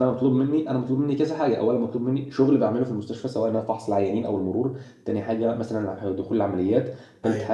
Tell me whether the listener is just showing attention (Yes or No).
Yes